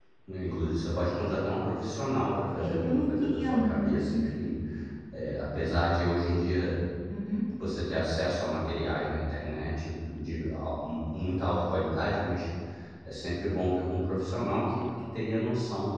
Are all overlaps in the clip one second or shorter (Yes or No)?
No